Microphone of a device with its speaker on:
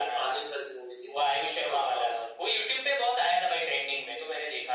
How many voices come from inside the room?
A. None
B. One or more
A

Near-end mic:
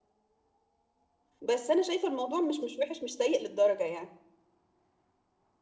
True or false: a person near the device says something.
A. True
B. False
A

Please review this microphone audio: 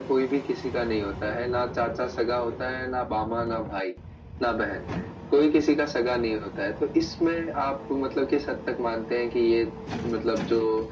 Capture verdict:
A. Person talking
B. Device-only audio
B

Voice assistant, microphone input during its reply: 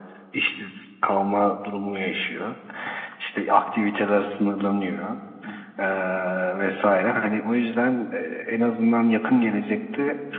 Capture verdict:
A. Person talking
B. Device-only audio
B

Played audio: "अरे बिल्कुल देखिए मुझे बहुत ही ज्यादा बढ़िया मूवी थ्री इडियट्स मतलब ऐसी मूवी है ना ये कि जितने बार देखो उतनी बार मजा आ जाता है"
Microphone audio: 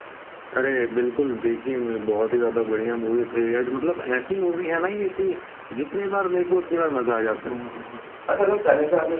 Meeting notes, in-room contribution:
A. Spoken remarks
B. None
A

